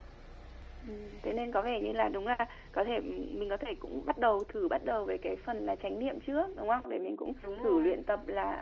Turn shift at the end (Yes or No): No